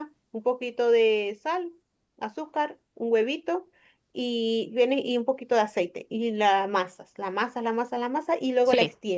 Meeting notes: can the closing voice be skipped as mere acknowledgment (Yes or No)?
Yes